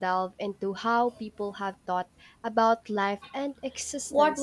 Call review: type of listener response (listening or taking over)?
taking over